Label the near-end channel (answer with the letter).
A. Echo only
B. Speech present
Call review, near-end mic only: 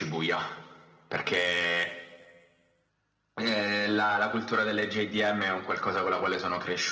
A